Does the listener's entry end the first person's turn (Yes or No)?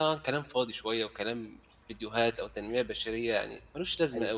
Yes